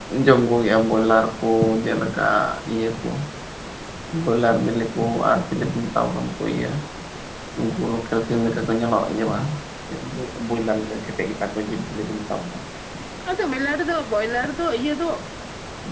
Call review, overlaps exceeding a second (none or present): none